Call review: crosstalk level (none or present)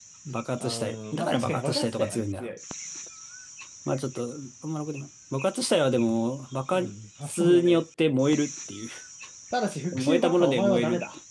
present